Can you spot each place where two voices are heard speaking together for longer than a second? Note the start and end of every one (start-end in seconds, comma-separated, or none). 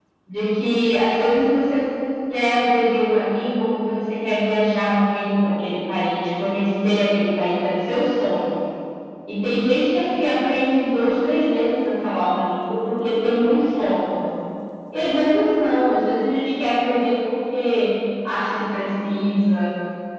none